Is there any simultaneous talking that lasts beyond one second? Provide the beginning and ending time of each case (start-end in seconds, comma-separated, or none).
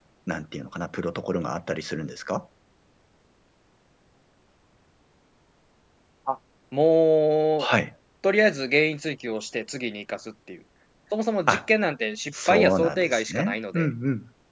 12.5-13.9